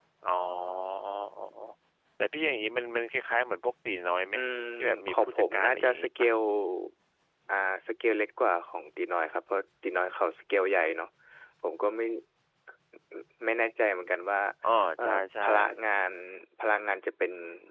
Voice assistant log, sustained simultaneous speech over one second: present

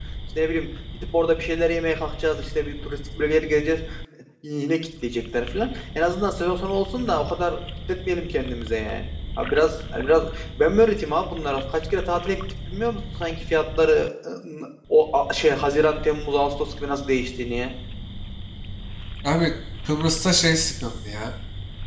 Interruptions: none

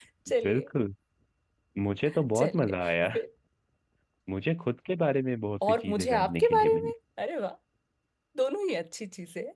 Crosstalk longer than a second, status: present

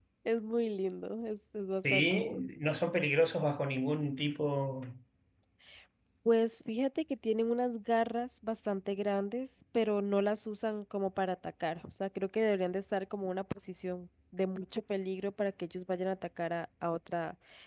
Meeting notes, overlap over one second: none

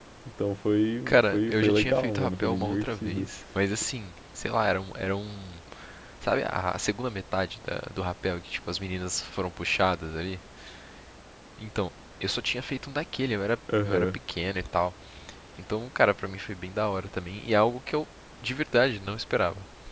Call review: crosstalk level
present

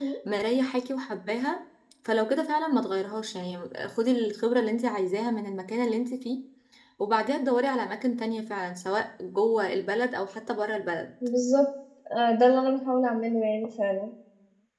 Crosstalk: none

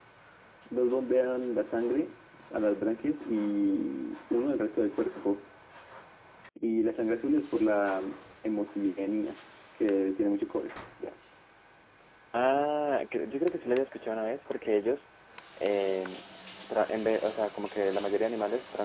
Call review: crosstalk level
none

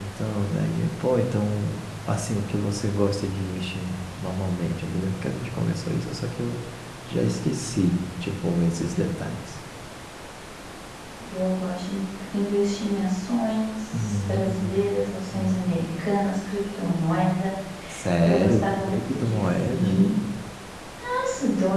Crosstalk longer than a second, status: present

